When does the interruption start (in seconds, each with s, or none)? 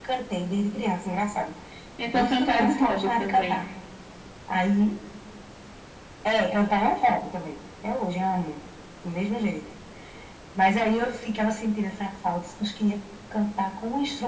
2.1 s